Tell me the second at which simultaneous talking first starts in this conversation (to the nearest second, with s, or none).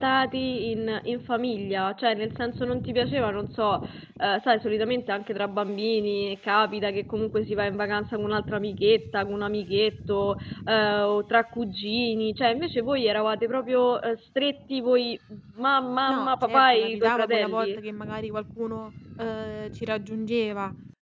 16 s